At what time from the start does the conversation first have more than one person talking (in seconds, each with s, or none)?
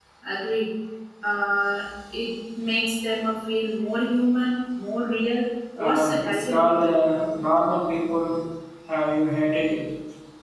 5.8 s